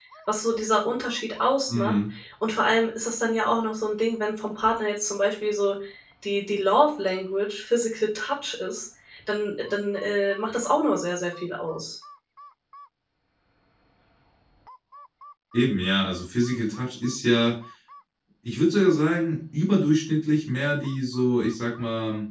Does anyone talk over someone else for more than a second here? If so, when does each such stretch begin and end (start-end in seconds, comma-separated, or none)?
none